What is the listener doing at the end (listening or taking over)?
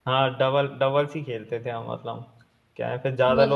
listening